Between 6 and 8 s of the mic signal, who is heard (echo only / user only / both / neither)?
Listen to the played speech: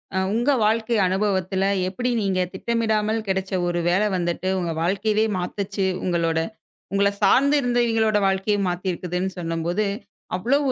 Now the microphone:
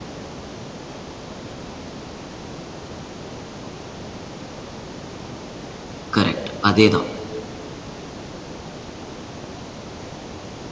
user only